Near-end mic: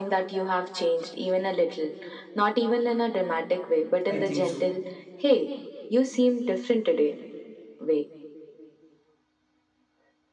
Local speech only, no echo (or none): I think so.